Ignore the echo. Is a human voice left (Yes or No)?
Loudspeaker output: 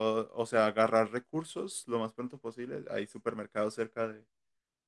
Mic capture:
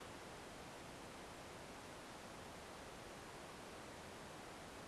No